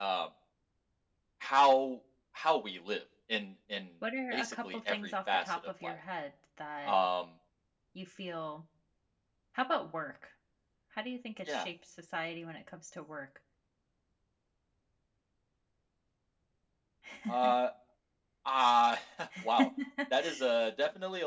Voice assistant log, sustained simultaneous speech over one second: present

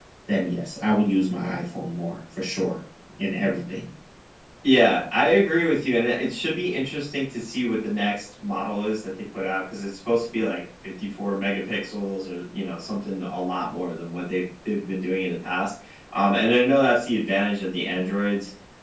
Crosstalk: none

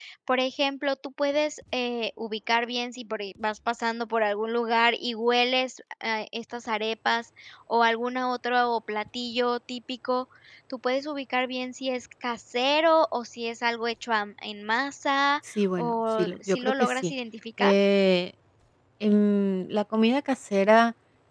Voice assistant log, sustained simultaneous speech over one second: present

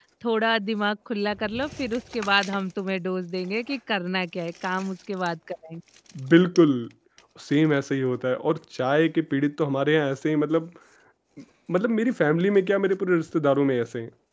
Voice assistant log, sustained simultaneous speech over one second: none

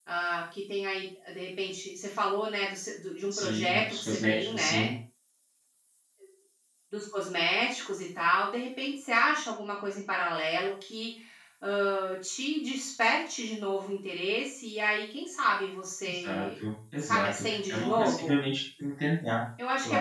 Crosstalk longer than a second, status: present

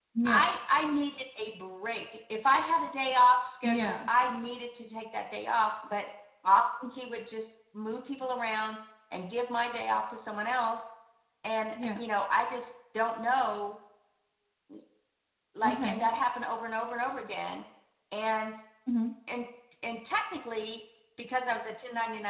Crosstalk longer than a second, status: none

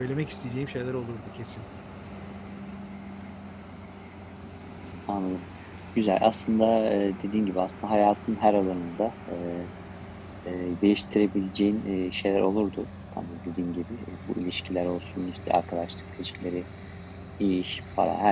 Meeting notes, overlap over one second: none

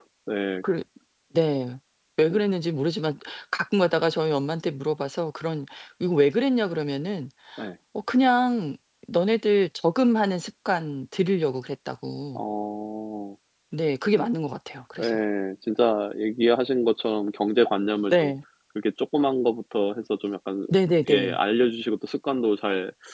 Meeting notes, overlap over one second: none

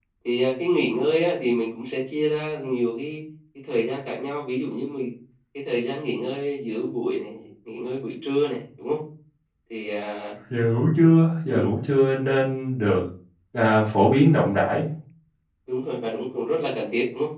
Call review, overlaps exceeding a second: none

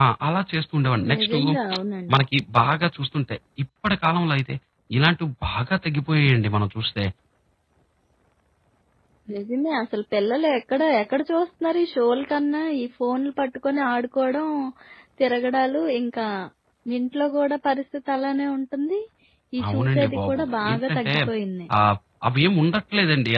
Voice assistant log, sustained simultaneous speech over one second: present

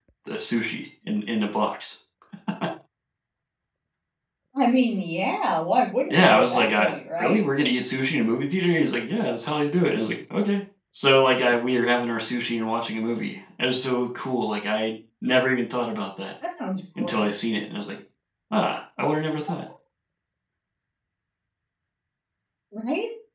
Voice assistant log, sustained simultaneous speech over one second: present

